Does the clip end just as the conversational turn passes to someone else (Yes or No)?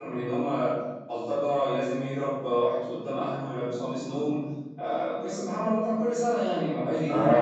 Yes